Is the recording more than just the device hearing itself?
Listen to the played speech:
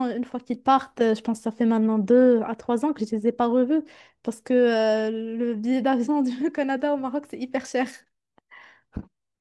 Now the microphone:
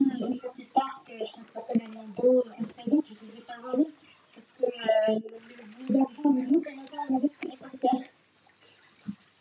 No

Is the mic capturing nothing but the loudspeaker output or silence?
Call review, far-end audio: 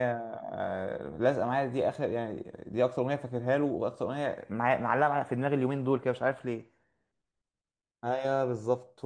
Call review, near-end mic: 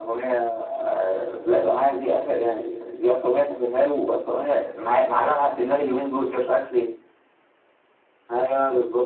Yes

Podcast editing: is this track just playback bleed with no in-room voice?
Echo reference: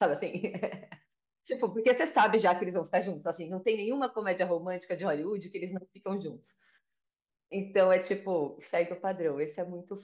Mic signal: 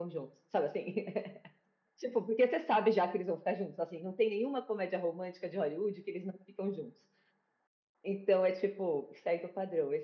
Yes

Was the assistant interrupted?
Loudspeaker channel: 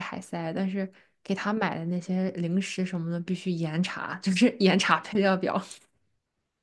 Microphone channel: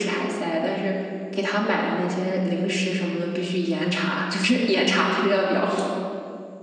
No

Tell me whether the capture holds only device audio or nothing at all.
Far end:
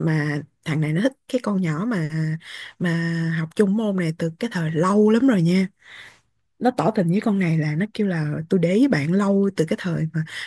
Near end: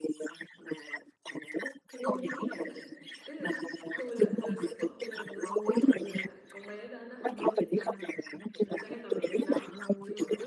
No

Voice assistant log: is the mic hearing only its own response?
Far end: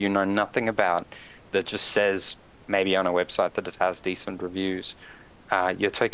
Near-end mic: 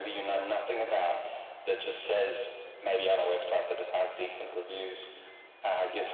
Yes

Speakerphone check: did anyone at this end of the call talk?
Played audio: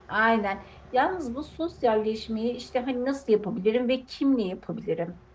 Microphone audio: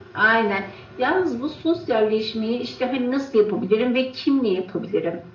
No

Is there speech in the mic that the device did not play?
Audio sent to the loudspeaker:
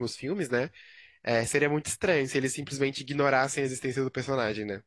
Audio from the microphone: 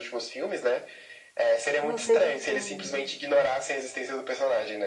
Yes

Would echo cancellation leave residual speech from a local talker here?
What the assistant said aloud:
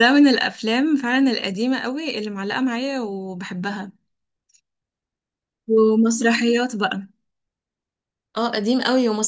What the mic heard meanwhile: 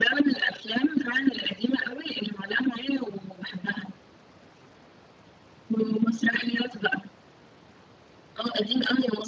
No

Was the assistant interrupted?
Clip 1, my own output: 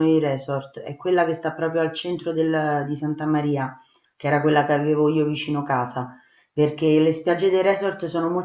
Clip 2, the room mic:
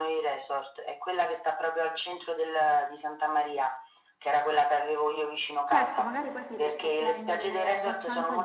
Yes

